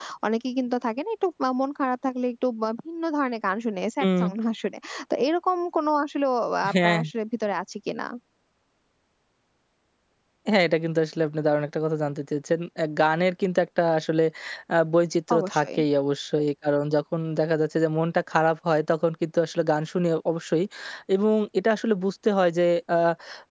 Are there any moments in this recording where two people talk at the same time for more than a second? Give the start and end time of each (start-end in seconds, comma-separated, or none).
none